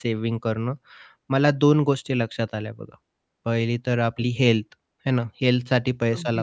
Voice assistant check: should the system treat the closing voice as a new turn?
No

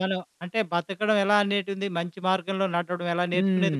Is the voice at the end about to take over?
Yes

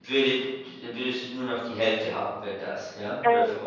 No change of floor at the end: No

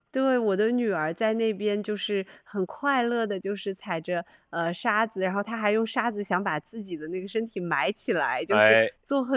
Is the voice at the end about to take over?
No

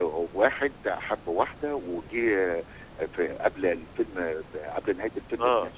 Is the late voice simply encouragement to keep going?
Yes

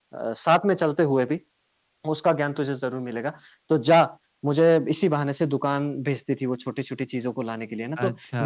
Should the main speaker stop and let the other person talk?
No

